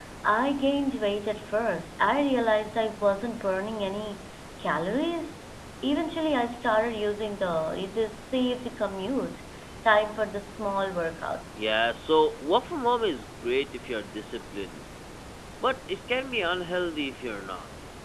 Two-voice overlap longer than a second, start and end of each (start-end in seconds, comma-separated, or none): none